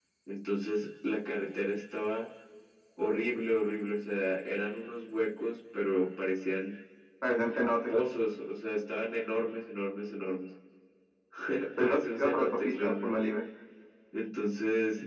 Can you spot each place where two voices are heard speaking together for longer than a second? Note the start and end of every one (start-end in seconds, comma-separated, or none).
11.8-13.1